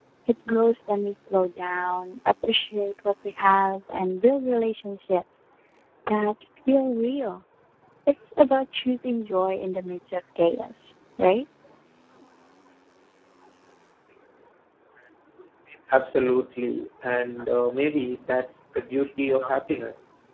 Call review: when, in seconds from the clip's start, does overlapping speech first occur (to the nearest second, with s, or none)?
none